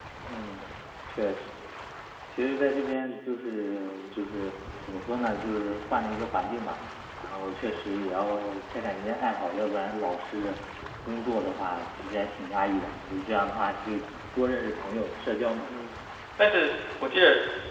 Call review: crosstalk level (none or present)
none